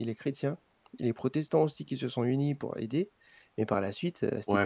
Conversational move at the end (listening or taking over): taking over